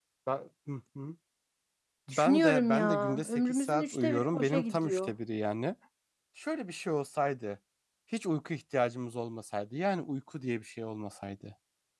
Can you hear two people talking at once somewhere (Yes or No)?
Yes